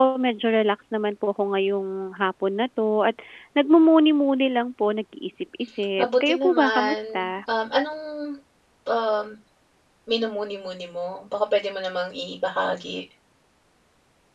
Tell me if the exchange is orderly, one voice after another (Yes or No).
No